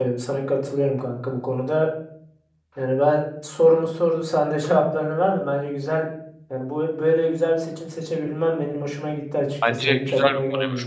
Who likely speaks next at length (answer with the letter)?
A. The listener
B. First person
A